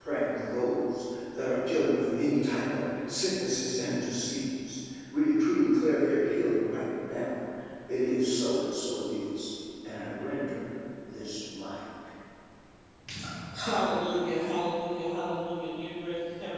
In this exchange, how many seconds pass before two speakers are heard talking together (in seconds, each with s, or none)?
none